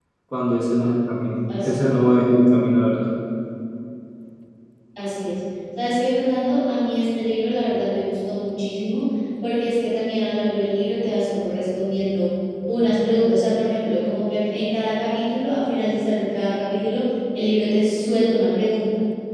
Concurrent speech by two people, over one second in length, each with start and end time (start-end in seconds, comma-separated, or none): none